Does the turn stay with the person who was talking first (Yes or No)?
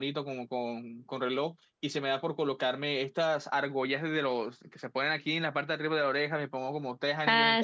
Yes